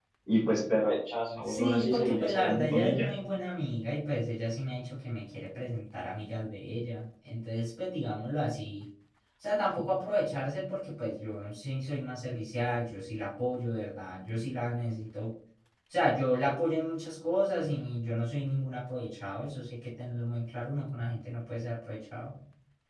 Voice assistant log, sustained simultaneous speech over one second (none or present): present